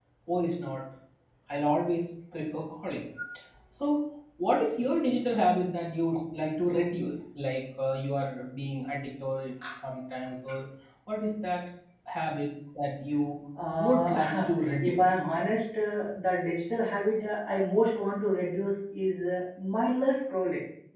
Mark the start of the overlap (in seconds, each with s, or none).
13.8 s